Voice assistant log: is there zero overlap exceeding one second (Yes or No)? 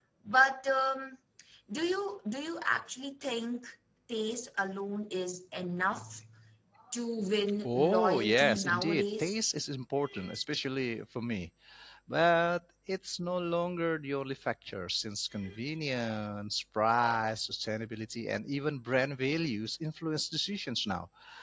No